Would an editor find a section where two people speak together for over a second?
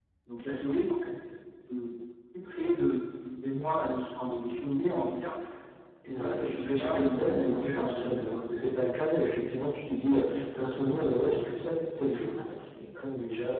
Yes, from 6.0 s

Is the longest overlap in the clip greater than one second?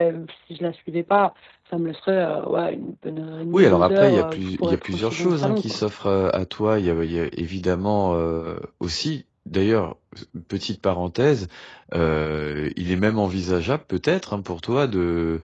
Yes, from 3.5 s

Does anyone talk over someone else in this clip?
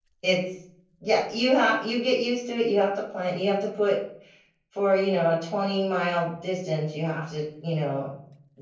No

